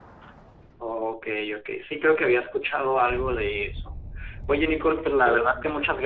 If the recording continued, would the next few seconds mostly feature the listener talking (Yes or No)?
No